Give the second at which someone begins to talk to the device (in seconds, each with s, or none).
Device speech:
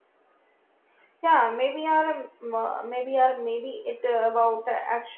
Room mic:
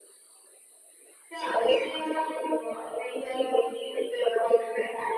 none